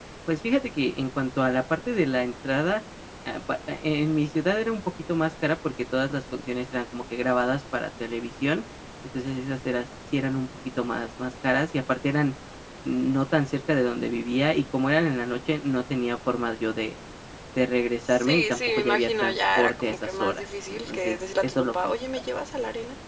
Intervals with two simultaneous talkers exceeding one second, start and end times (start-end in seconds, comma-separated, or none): 18.1-21.9